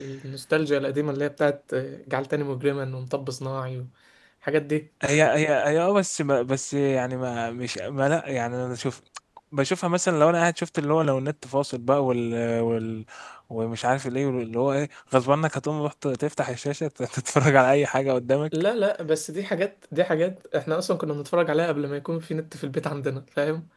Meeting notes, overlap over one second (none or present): none